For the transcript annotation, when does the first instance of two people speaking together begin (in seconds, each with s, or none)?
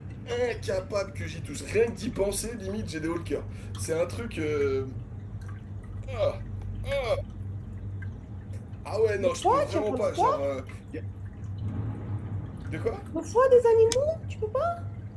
9.2 s